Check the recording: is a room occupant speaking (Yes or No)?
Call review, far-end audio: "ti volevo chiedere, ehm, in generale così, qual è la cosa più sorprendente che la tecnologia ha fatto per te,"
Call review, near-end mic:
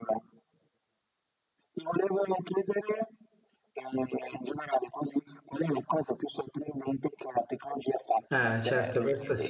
Yes